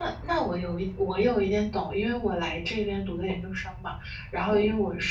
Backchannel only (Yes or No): Yes